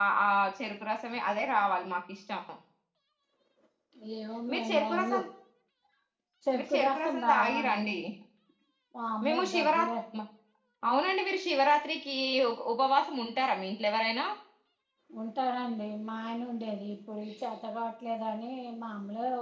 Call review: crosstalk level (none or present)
present